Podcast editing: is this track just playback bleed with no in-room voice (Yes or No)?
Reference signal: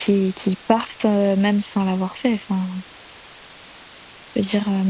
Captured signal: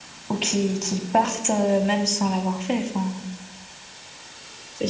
Yes